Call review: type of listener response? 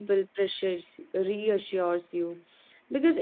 listening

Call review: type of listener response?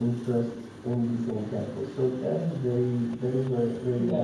taking over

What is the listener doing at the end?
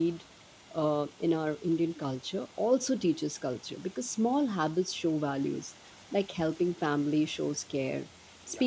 listening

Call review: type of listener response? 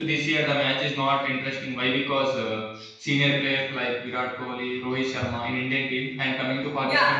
taking over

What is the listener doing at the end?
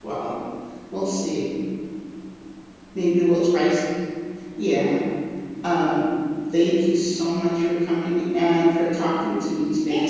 taking over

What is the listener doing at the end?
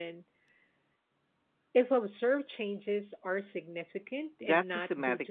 taking over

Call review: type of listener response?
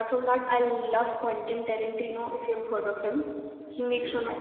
listening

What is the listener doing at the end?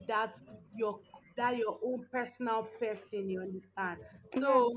listening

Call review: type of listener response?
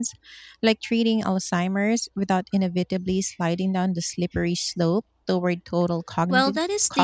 taking over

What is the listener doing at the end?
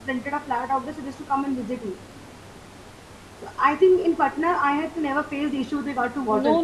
taking over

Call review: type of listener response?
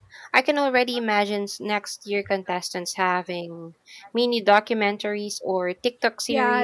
taking over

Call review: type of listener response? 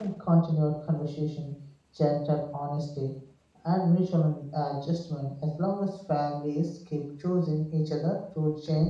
listening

